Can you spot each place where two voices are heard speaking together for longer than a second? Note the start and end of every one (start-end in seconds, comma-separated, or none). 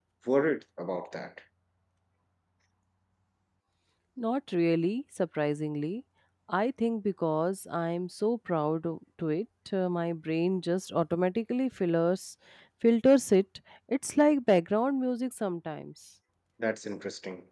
none